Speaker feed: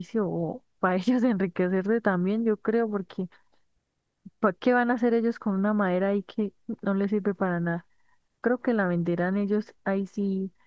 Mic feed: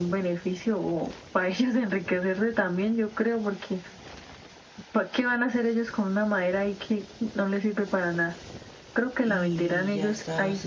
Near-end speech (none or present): present